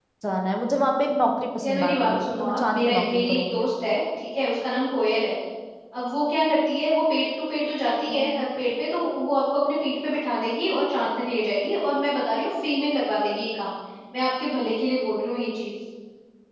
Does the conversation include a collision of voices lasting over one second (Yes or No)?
Yes